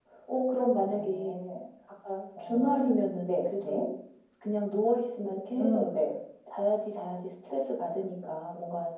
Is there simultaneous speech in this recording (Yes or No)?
Yes